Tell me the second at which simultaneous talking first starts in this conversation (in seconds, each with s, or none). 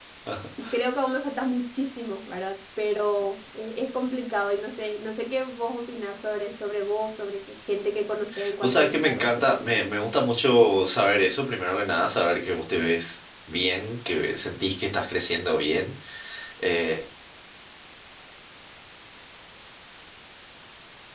8.6 s